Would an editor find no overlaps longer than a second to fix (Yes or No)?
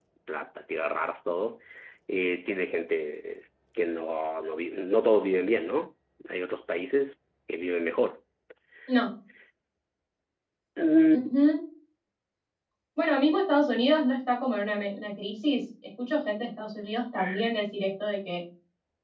Yes